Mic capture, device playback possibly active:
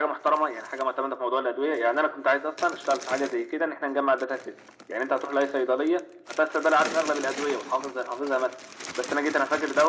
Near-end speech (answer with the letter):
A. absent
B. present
A